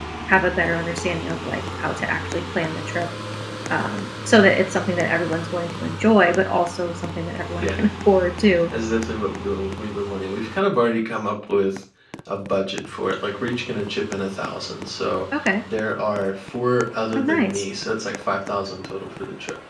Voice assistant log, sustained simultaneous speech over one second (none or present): none